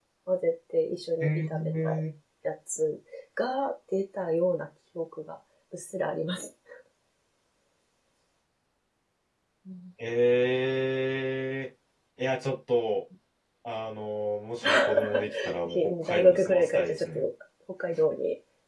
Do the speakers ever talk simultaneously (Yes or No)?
Yes